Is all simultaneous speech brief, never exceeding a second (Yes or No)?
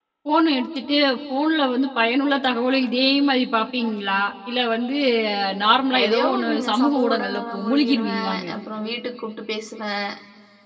No